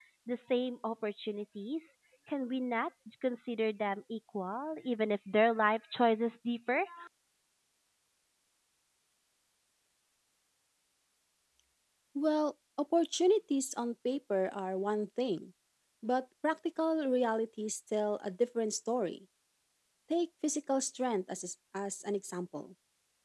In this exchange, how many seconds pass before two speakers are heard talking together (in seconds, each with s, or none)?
none